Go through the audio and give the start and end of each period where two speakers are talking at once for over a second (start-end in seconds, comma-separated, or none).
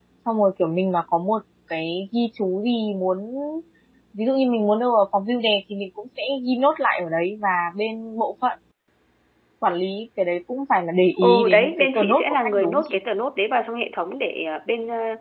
11.2-13.0